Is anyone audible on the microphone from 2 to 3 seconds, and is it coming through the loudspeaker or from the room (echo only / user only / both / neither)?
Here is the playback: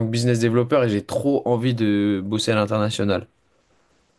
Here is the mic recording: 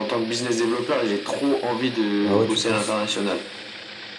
both